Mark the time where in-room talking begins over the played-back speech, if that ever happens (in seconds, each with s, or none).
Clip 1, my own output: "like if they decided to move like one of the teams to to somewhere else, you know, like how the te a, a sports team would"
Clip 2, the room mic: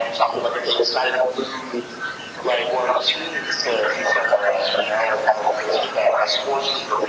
none